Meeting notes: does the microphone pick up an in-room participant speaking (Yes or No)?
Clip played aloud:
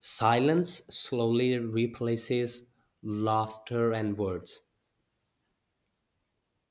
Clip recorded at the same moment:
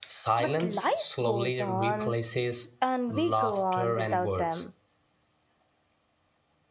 Yes